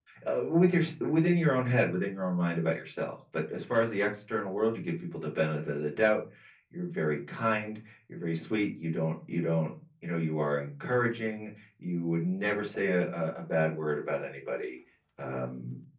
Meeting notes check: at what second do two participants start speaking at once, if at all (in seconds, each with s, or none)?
none